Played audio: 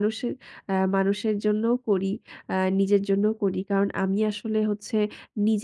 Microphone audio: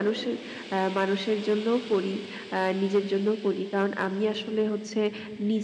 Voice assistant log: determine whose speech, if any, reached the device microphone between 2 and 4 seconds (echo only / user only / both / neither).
echo only